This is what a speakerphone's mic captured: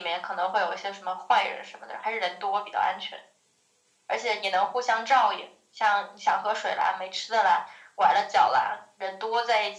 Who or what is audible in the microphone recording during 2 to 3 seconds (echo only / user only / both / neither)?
echo only